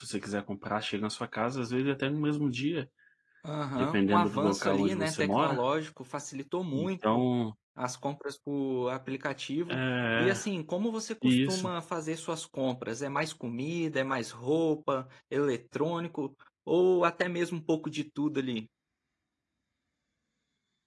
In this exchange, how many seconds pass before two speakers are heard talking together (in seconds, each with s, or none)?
3.8 s